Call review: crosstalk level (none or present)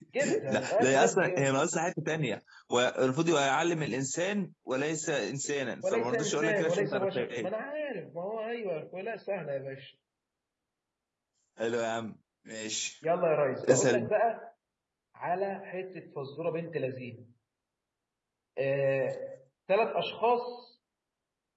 present